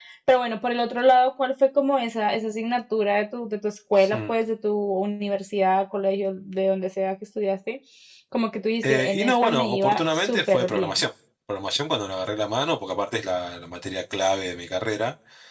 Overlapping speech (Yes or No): Yes